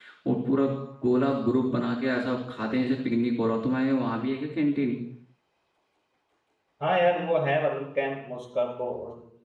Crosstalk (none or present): none